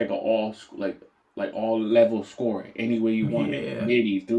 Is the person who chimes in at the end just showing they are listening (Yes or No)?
Yes